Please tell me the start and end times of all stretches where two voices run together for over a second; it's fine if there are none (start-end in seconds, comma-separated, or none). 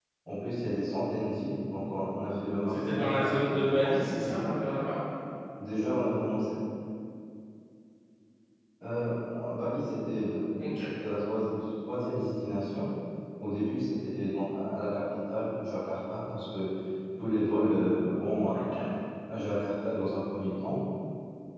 2.7-4.6